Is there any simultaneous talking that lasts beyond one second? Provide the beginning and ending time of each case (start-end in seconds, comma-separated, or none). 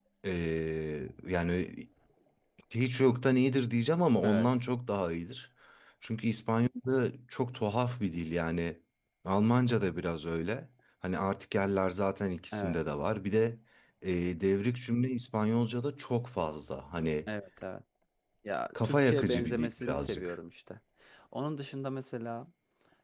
18.8-20.3